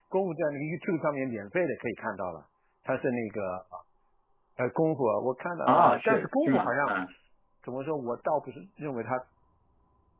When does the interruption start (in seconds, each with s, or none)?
5.7 s